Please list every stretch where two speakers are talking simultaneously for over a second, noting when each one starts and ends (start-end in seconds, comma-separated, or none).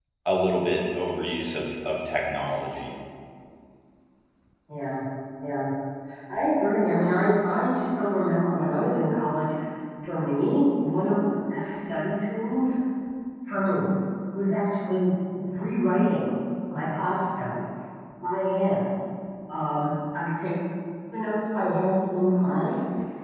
none